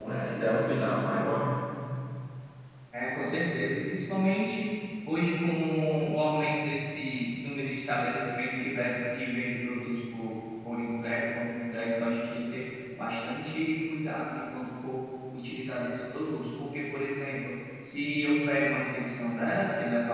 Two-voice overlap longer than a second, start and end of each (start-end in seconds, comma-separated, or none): none